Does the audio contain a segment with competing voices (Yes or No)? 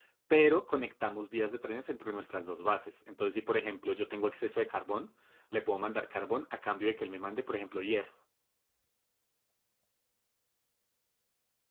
No